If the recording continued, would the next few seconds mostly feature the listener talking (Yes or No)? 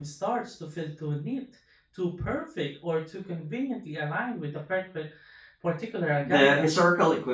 Yes